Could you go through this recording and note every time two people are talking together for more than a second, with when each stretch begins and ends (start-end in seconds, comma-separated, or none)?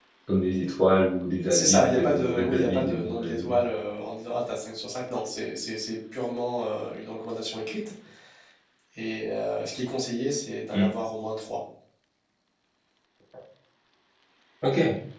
1.5-3.6